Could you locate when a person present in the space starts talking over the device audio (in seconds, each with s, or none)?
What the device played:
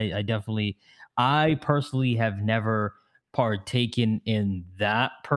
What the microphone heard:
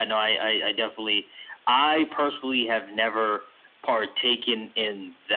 none